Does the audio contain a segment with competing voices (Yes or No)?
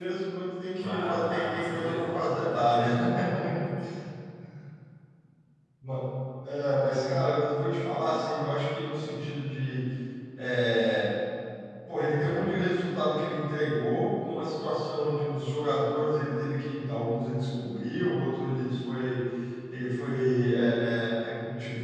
Yes